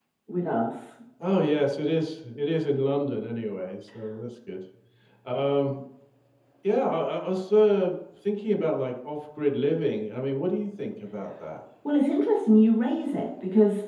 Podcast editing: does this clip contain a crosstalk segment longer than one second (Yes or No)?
No